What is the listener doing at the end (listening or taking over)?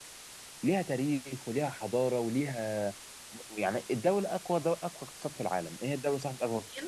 listening